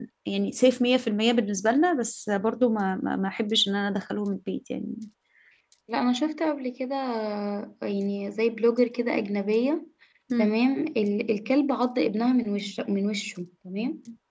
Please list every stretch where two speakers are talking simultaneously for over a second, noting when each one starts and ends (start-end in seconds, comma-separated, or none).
none